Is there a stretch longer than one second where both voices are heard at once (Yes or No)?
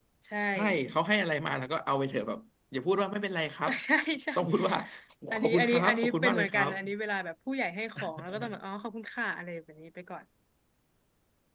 Yes